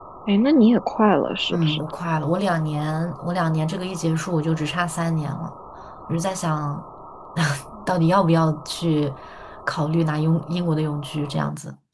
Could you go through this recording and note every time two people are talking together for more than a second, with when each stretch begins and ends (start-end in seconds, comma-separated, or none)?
none